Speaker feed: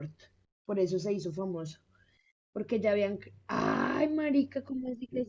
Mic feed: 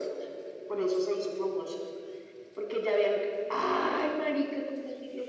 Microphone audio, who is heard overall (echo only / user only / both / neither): echo only